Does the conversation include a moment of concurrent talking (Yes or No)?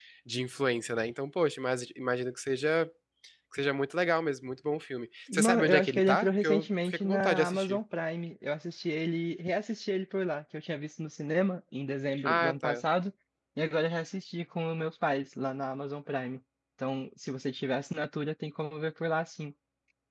Yes